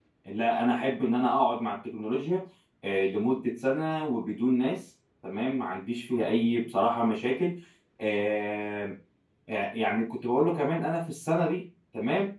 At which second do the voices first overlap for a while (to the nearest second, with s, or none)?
none